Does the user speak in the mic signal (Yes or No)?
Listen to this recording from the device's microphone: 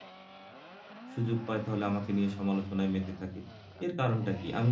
Yes